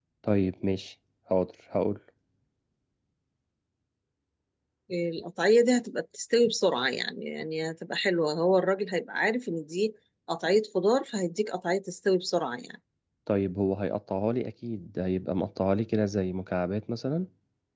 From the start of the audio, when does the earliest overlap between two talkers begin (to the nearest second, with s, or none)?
none